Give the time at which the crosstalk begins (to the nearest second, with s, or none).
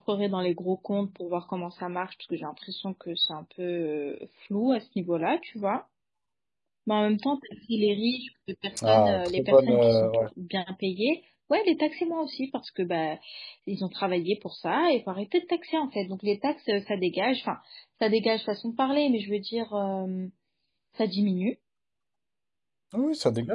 9 s